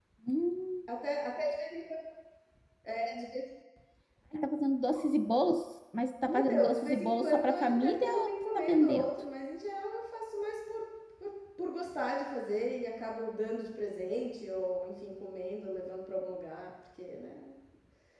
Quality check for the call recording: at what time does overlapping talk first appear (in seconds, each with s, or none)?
6.3 s